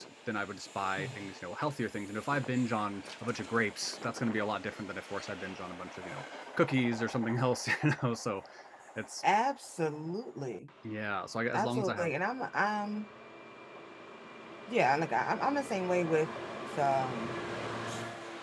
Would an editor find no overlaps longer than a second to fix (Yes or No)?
Yes